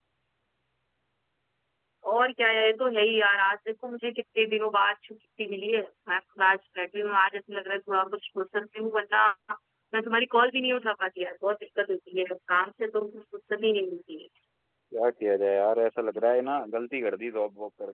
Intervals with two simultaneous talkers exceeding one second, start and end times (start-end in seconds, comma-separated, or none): none